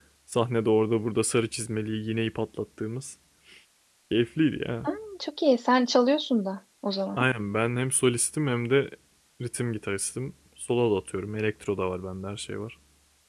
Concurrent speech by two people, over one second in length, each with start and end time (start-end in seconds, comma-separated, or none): none